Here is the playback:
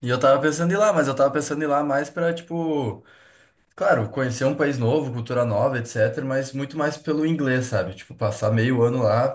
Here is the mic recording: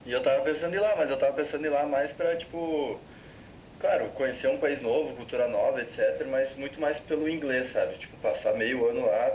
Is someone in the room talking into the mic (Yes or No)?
No